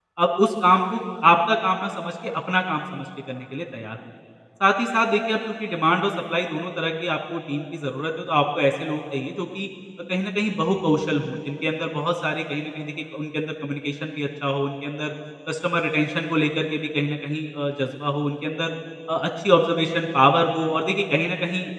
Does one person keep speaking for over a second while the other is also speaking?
No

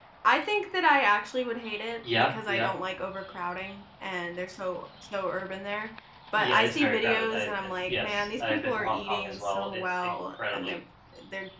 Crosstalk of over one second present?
Yes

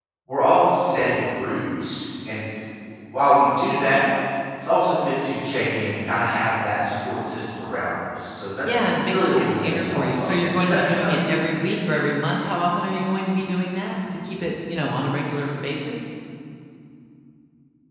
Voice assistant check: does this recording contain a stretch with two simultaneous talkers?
Yes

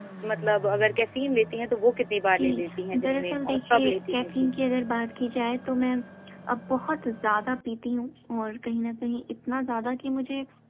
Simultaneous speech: Yes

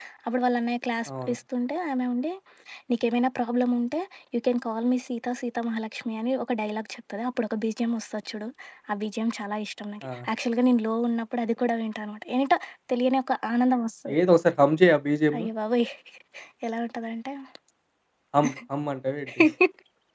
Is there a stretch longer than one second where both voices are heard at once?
No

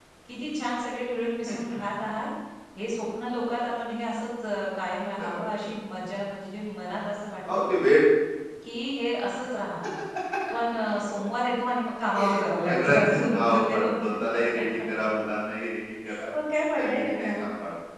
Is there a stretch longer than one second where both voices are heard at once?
Yes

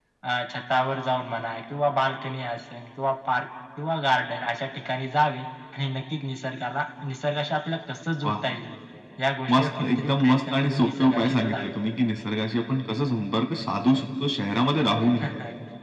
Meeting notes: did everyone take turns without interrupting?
No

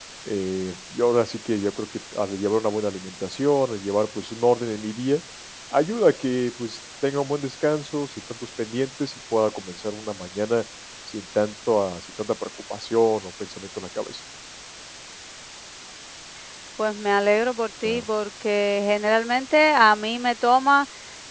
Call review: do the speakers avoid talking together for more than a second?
Yes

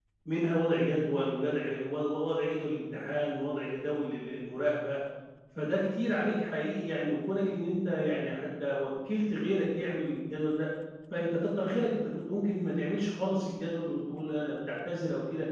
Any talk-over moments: No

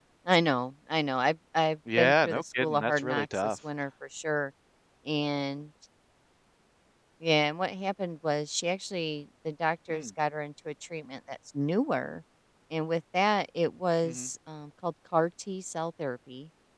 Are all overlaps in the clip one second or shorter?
No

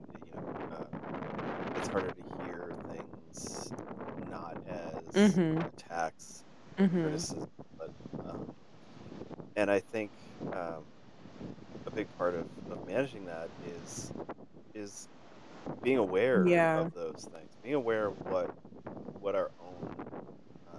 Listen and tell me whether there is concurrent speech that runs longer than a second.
No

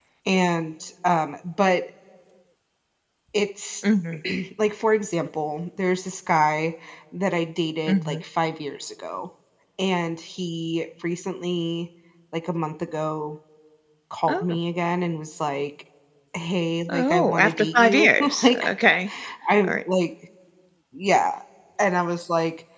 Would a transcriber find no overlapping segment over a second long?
No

